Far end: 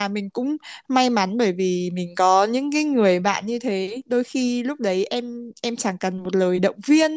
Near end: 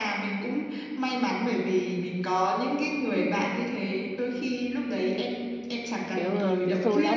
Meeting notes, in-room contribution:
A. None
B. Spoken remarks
B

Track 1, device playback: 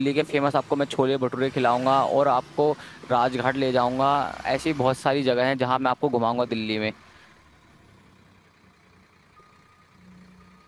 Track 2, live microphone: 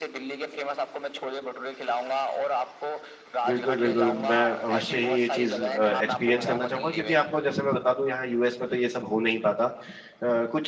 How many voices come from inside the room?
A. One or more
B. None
A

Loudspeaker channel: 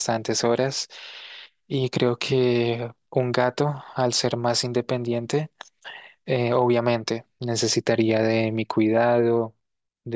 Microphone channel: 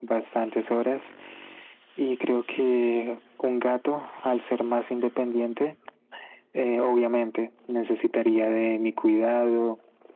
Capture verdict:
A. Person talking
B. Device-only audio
B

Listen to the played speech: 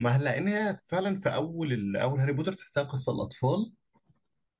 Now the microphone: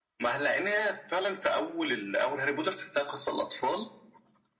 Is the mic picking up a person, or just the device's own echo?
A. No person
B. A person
A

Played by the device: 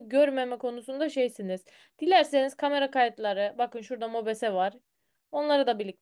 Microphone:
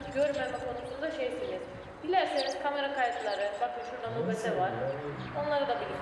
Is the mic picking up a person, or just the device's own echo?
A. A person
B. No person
A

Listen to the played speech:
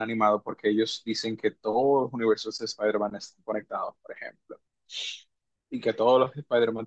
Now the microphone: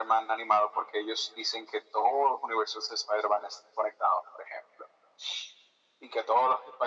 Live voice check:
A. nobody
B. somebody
A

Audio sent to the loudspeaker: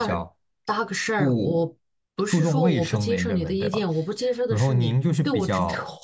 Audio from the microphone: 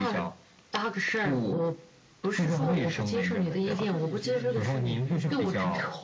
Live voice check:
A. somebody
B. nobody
A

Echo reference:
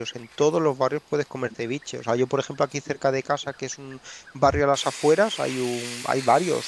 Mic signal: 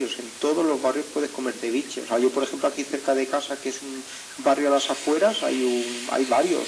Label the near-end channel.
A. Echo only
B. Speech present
A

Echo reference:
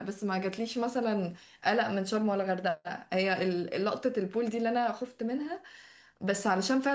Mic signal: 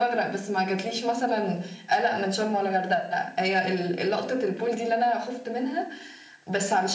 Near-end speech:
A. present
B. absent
B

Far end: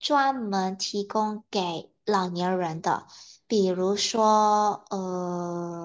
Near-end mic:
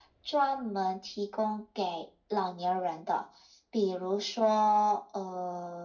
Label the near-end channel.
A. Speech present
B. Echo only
B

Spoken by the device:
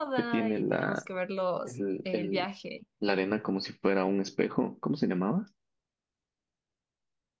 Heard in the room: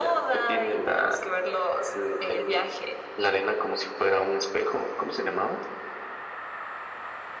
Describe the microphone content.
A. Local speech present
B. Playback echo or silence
B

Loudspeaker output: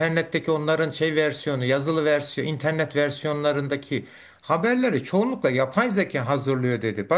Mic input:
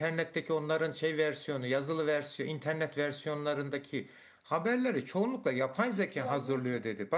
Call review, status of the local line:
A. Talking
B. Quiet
A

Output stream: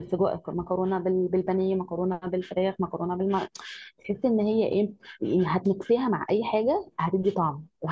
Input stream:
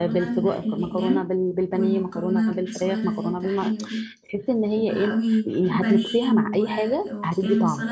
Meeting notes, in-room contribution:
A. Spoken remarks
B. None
A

